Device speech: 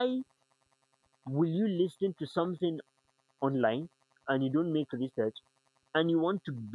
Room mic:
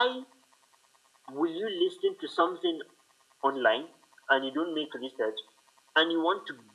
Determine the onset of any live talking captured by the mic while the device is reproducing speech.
none

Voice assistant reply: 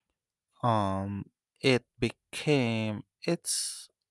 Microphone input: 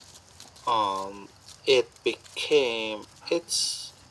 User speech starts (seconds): none

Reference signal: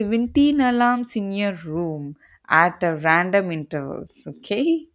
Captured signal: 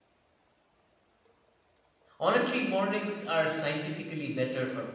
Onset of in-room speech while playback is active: 2.2 s

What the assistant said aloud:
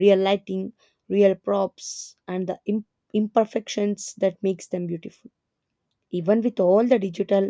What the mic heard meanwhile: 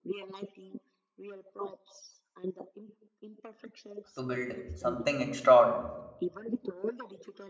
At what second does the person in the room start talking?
4.1 s

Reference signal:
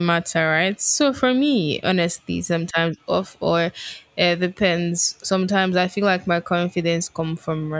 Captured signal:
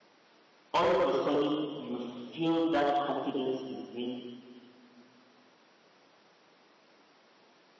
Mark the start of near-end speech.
0.7 s

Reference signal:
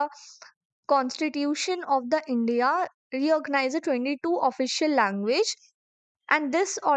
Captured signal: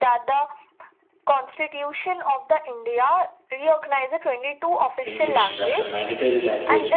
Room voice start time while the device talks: 5.0 s

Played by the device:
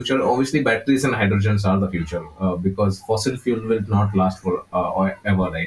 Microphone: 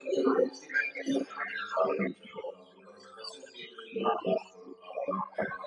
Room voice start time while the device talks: none

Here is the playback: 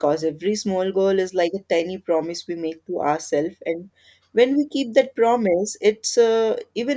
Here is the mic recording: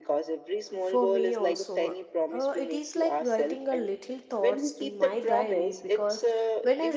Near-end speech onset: 0.8 s

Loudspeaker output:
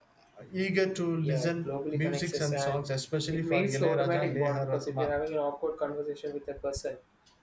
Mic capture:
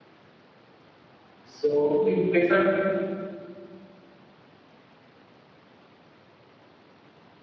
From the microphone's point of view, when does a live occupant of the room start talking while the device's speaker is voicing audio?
1.4 s

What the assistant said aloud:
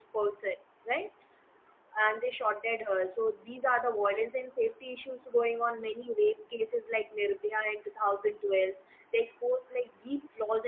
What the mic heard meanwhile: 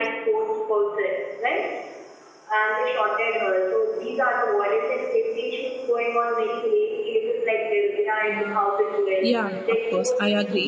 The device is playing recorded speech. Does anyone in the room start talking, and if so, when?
8.3 s

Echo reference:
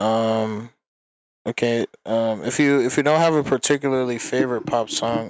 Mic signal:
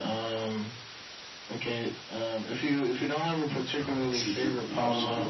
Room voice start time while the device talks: 3.8 s

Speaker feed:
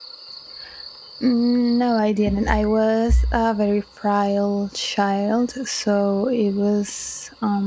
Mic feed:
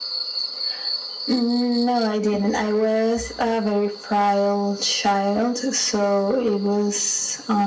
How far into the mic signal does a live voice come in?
none

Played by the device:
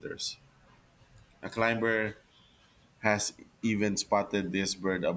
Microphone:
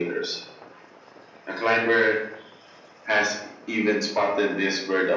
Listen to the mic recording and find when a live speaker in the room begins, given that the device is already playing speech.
none

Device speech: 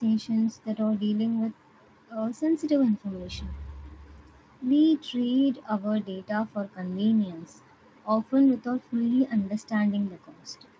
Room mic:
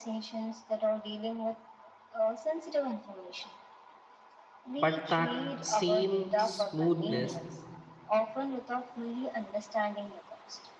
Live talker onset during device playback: 4.8 s

